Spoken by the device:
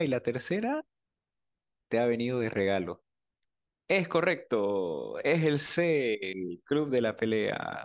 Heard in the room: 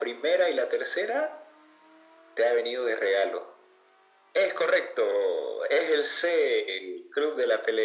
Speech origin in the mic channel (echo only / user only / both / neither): echo only